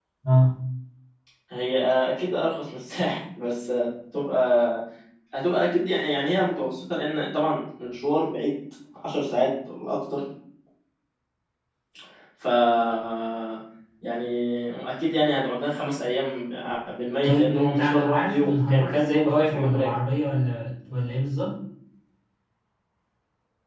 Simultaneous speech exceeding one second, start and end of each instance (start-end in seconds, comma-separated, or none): 17.2-19.9